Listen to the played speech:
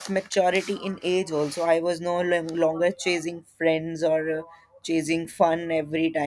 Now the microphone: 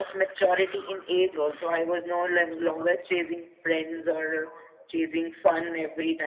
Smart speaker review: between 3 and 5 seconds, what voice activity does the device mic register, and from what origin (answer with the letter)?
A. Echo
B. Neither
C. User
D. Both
A